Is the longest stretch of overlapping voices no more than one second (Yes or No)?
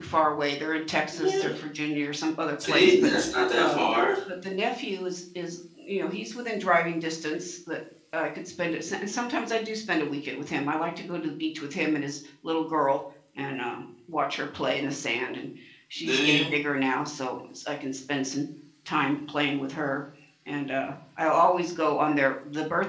Yes